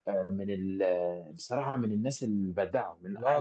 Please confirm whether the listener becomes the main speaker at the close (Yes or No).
Yes